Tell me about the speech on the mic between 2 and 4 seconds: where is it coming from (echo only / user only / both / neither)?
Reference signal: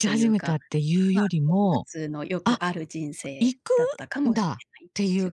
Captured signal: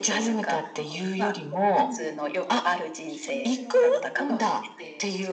both